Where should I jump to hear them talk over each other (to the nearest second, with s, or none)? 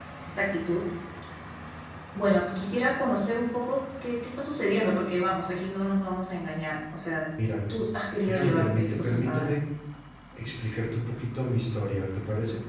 8 s